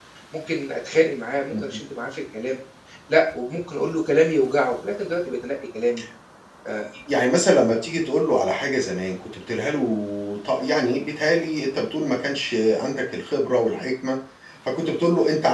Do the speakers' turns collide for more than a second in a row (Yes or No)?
No